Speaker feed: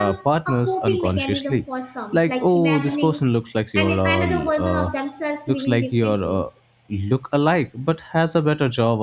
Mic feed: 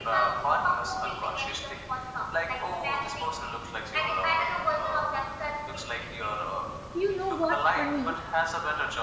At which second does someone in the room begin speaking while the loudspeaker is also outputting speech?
6.9 s

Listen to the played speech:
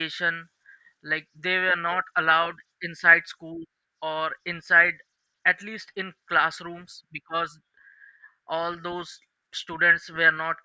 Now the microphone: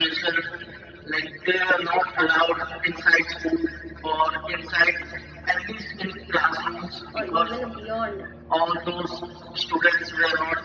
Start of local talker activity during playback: 7.1 s

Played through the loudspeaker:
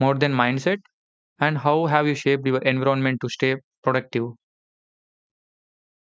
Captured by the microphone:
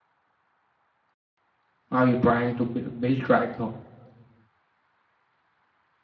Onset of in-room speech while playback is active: 1.9 s

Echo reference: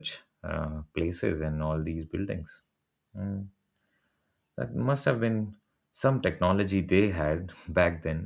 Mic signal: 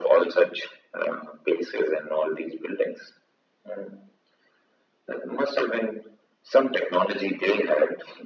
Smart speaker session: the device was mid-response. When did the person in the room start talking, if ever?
none

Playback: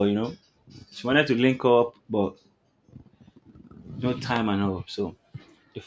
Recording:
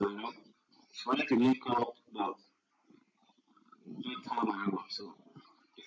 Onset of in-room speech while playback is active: none

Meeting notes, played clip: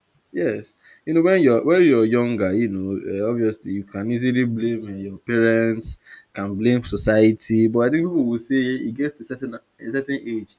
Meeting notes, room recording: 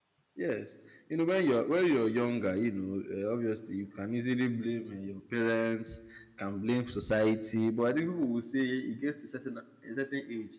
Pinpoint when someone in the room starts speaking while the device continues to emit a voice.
none

